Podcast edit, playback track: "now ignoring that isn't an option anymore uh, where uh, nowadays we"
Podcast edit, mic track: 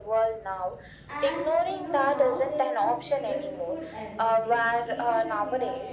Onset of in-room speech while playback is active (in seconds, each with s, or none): 1.1 s